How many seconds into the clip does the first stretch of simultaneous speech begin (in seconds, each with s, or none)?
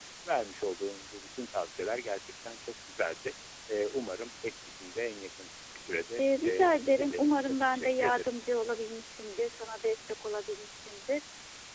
6.2 s